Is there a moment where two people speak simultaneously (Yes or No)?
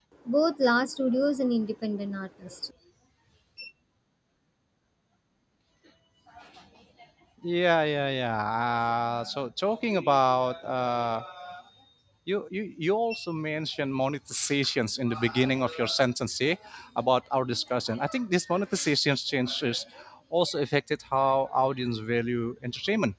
No